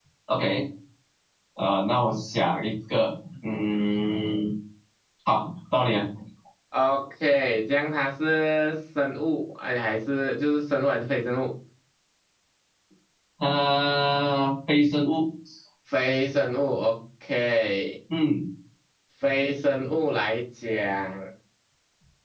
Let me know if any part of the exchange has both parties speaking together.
No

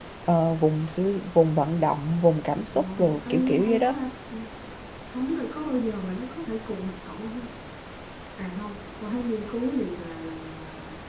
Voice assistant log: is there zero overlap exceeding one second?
No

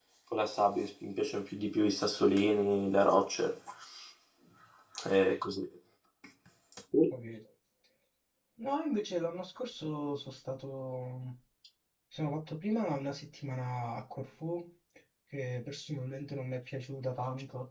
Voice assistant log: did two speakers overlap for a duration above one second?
No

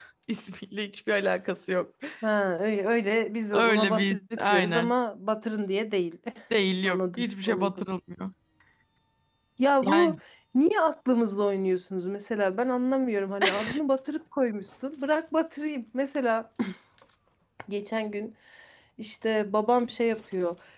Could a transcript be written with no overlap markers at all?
No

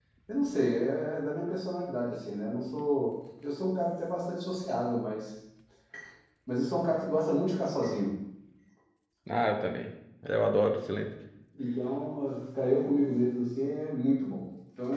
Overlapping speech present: No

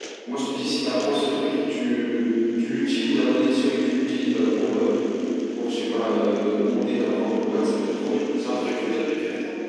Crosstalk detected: No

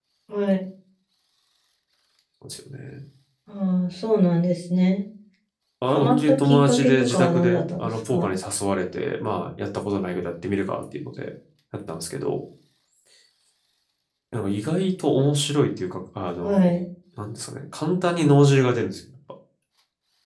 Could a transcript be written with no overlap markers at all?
No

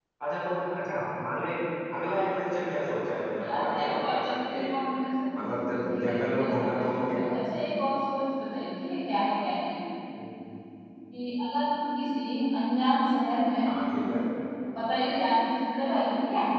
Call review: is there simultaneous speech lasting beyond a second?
Yes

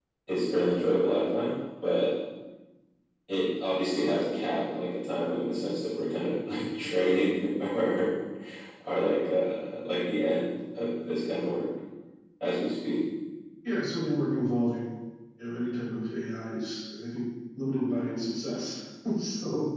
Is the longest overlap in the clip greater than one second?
No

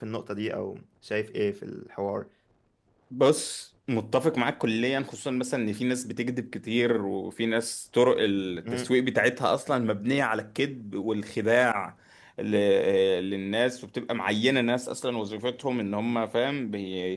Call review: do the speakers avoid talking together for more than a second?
Yes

